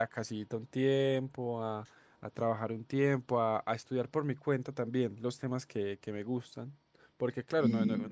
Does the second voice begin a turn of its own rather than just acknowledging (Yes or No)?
No